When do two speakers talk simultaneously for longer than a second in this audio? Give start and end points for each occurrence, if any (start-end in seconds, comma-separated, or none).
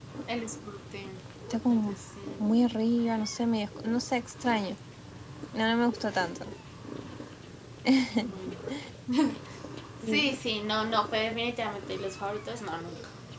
none